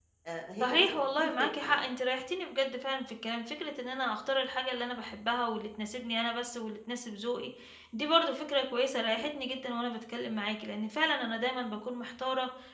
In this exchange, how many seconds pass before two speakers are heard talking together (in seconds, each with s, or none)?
0.6 s